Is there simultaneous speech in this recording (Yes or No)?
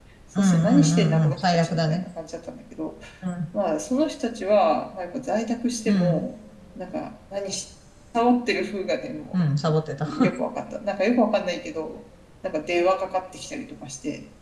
Yes